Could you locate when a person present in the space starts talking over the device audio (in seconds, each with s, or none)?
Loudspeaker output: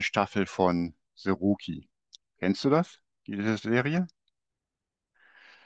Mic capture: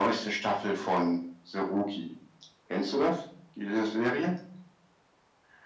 none